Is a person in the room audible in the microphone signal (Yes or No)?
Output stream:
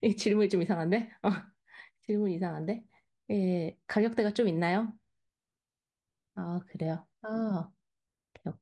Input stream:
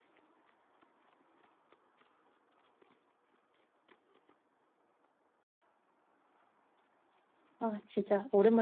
Yes